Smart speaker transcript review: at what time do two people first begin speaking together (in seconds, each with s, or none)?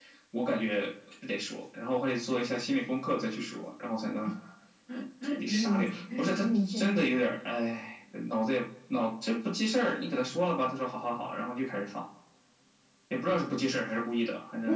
5.5 s